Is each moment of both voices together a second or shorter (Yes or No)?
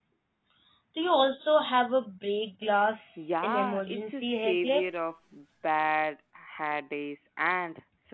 No